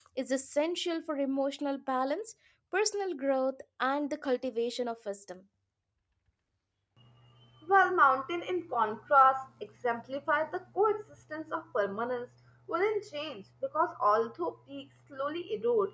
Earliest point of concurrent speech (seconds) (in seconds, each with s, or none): none